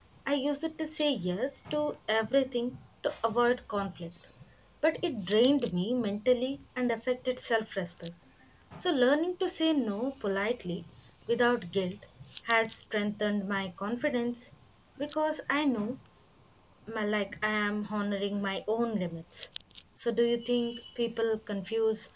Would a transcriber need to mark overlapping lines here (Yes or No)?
No